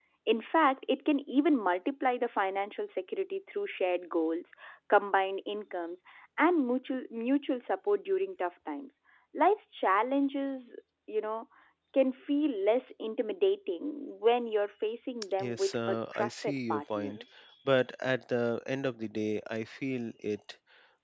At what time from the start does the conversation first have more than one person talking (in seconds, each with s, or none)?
15.4 s